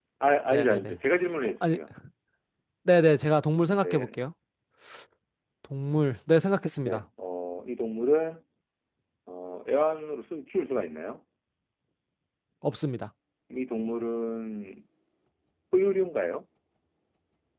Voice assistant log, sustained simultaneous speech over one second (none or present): none